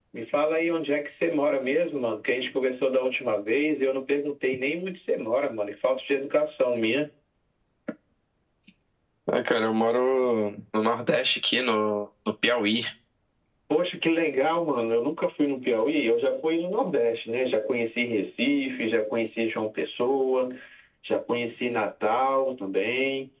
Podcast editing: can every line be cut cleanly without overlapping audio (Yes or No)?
Yes